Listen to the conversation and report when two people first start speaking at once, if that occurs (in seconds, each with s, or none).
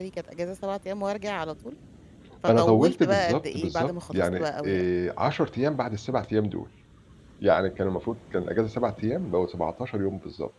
2.5 s